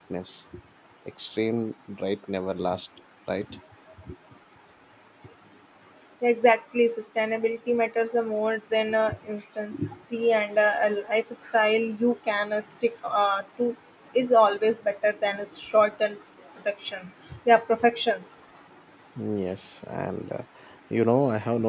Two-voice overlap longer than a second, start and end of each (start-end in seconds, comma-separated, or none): none